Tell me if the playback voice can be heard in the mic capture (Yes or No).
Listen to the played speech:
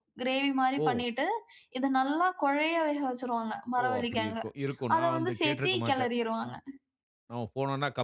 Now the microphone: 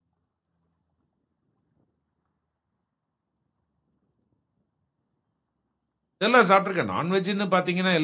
No